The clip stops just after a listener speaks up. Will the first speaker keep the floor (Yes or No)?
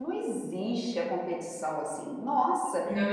Yes